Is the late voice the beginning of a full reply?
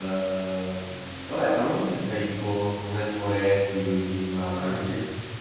Yes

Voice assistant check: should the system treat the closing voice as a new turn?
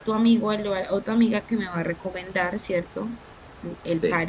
Yes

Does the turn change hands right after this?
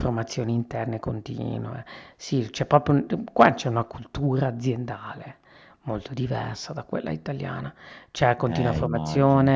No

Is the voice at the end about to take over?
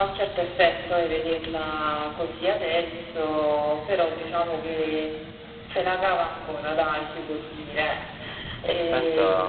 Yes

